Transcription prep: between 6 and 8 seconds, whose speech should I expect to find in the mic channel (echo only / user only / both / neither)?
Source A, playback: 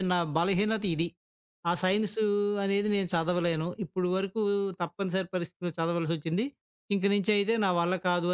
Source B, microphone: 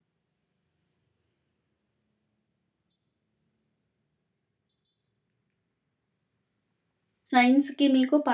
user only